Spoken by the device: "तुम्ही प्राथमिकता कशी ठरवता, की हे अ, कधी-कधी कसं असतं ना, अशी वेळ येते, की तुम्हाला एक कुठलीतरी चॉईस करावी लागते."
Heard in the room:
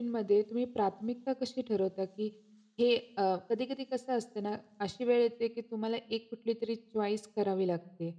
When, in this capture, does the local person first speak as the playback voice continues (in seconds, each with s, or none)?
none